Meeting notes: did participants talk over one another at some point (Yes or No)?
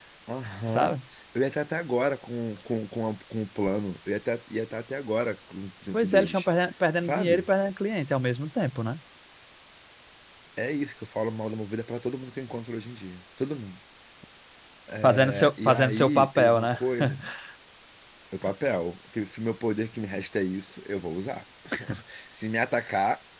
Yes